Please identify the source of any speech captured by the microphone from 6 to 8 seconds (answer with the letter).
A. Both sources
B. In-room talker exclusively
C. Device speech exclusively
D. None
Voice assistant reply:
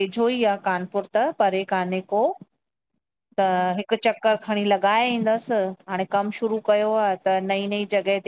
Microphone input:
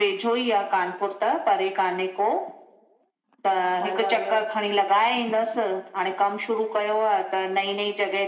C